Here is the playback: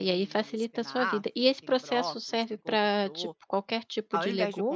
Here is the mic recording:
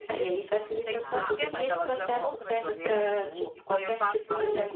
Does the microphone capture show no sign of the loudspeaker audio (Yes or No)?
No